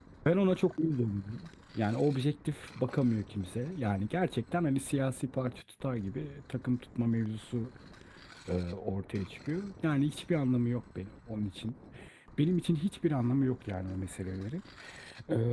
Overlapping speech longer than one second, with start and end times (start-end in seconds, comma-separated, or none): none